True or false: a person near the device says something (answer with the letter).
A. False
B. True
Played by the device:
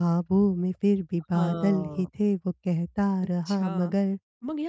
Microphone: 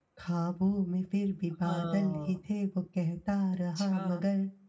A